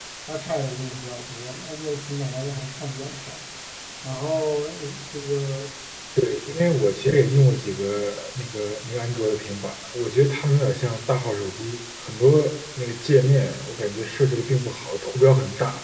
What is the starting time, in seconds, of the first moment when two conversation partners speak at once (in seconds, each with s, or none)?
none